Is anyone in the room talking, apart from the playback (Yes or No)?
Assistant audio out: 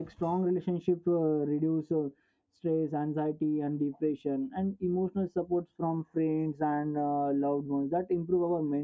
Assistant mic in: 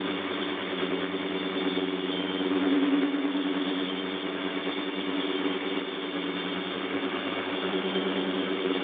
No